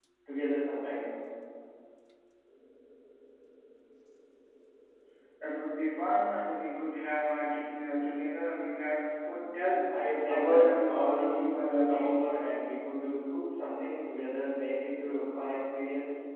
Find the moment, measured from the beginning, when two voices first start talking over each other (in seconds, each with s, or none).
10.3 s